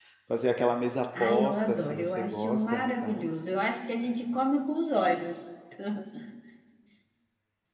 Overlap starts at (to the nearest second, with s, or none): 1 s